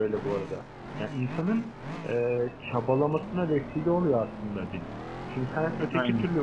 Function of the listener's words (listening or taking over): listening